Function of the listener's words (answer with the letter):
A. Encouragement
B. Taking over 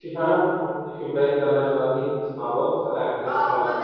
B